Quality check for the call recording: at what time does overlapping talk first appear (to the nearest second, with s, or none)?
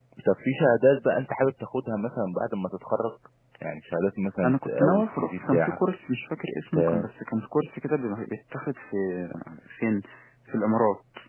4 s